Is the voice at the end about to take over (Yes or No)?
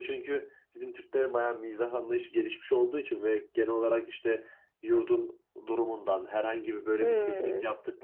No